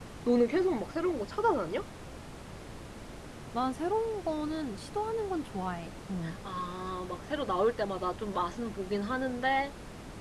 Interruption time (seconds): none

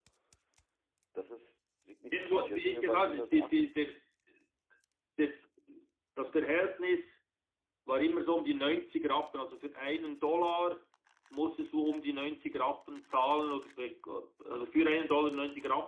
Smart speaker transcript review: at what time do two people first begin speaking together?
2.1 s

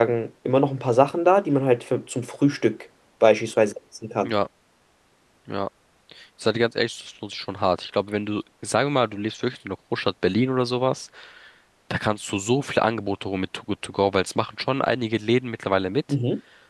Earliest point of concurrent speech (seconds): none

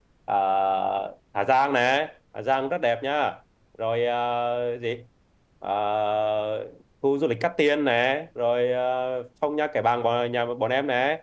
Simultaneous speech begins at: none

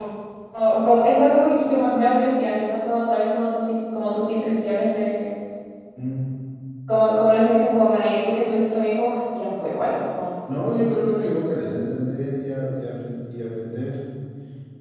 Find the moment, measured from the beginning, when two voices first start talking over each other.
none

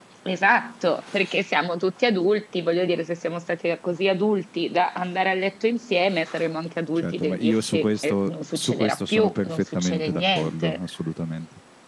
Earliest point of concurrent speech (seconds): 7.0 s

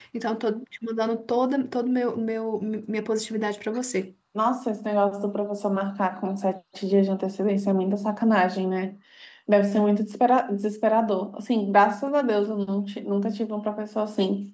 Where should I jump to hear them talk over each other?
none

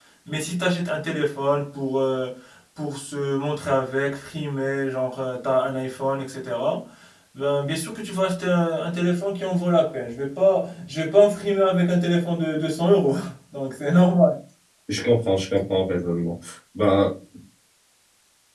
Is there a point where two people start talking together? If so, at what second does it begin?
none

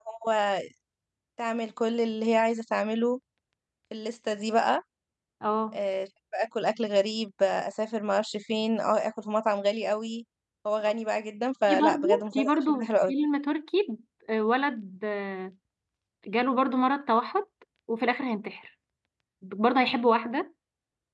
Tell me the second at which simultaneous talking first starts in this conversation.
11.7 s

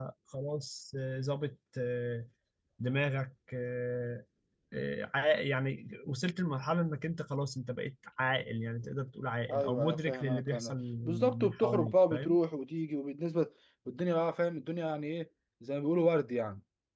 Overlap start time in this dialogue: 9.5 s

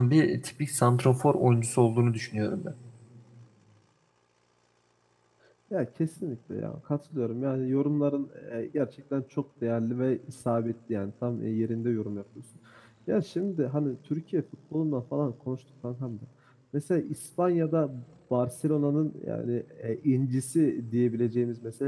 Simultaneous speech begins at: none

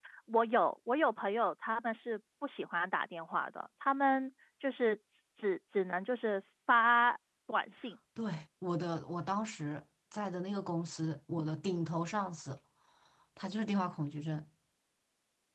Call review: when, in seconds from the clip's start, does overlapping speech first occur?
none

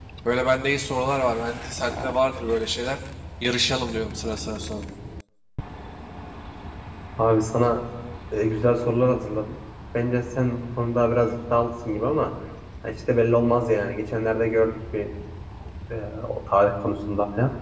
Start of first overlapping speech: none

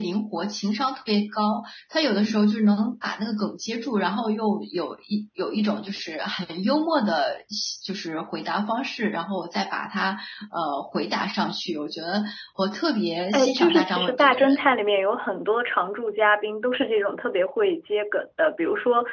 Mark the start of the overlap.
13.3 s

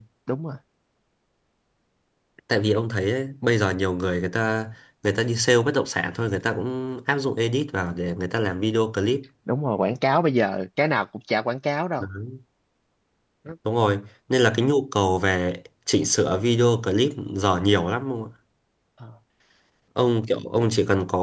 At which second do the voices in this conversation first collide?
none

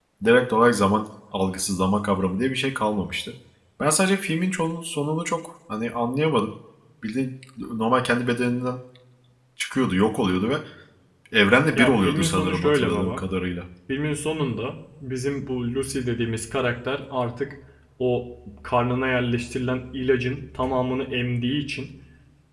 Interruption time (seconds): 11.8 s

